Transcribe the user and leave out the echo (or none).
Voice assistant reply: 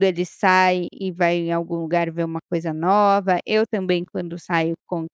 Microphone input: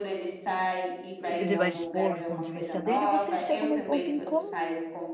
ele vai expor o ponto de vista dele, vocês chegam num ponto em comum